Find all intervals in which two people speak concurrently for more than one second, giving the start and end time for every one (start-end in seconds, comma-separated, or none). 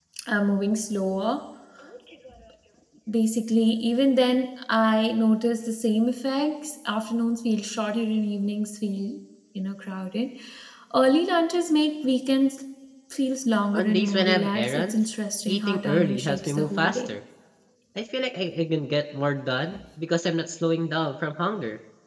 13.7-15.0, 15.5-17.2